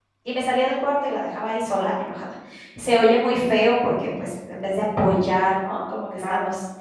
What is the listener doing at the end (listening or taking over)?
listening